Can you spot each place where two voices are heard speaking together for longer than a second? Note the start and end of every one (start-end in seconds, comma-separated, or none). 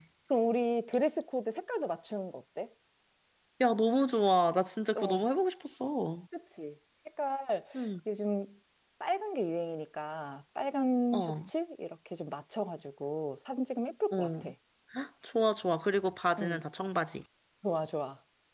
none